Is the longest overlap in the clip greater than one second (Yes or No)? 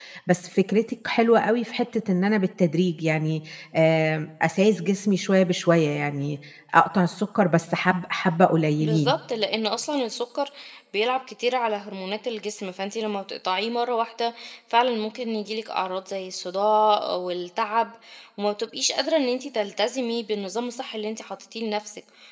No